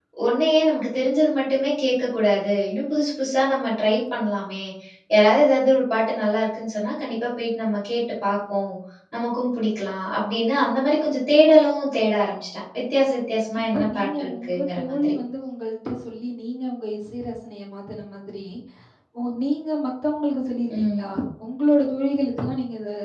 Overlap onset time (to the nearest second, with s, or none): 14 s